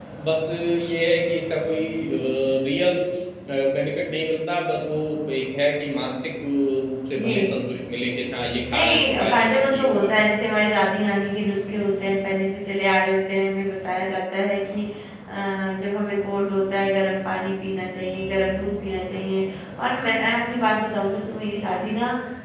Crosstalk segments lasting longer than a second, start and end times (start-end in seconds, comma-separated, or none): 8.7-10.1